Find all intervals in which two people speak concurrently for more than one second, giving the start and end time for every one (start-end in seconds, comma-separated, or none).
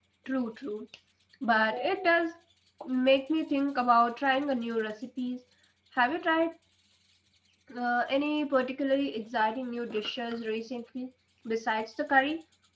none